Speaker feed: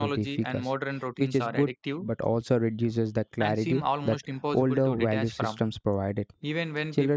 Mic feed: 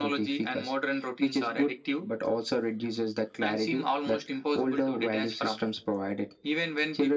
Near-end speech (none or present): none